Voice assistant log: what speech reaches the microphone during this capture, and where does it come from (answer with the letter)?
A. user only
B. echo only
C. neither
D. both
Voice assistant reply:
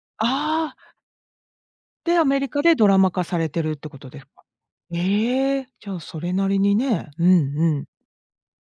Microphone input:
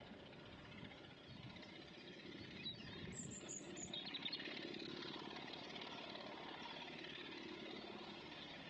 C